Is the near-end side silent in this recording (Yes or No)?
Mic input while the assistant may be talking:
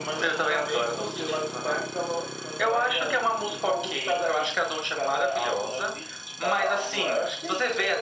Yes